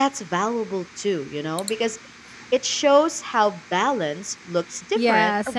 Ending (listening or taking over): taking over